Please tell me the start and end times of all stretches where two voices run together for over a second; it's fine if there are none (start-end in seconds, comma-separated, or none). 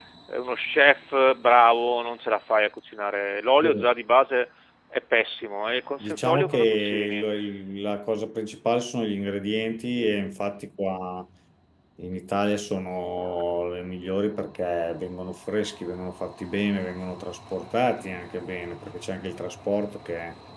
6.0-7.2